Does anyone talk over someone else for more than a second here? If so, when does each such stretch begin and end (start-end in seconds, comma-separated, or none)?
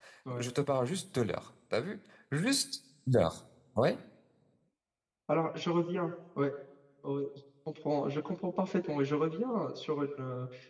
none